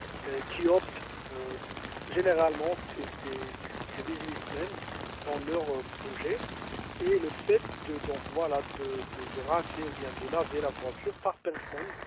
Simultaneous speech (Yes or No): No